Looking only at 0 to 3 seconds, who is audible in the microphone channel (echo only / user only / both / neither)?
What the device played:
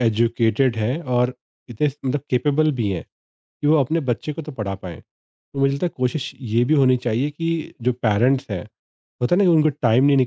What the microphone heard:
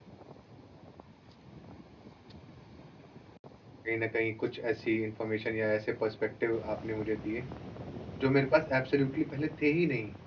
neither